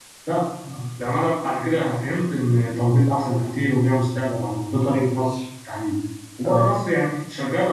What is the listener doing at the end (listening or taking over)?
listening